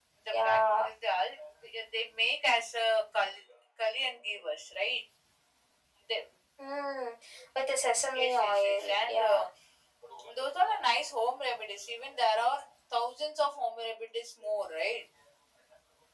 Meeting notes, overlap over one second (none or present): present